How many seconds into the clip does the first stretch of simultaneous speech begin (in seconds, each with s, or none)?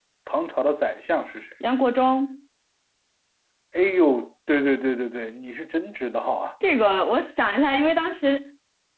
none